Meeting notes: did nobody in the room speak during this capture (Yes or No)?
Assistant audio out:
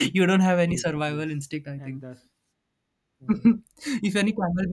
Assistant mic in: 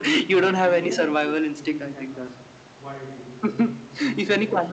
No